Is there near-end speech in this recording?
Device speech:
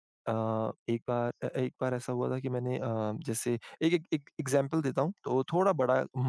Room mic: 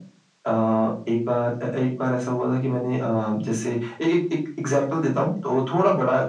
No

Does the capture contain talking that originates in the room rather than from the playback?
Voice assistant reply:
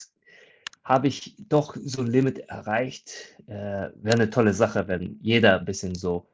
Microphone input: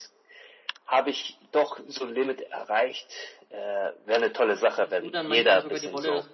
Yes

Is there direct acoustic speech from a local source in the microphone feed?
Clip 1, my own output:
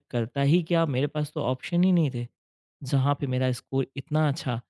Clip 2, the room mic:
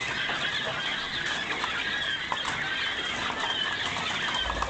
No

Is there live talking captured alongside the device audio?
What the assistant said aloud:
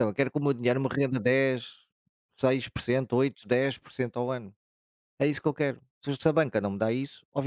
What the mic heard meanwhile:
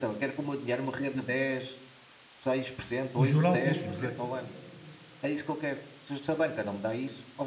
Yes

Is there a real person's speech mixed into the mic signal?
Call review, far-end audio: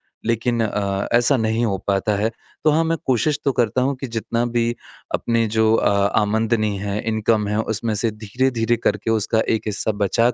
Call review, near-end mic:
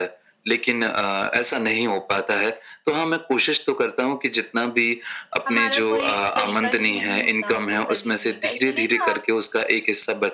Yes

